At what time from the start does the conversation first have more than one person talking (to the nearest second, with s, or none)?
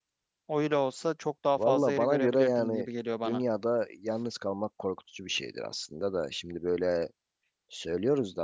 2 s